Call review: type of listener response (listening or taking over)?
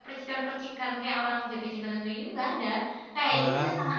listening